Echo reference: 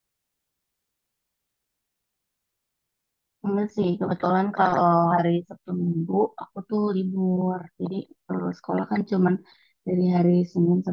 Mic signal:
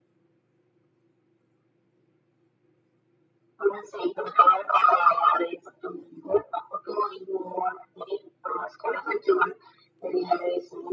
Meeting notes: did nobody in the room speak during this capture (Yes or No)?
Yes